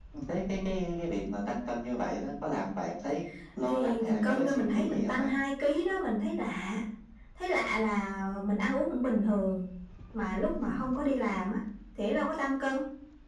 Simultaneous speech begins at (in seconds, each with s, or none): 3.6 s